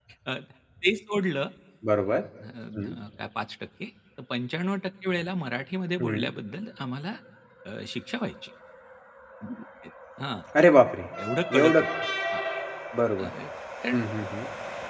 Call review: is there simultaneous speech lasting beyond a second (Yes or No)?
No